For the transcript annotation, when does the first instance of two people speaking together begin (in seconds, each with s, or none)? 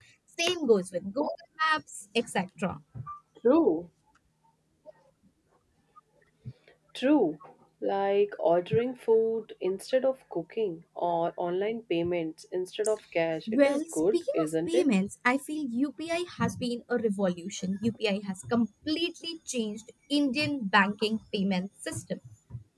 13.5 s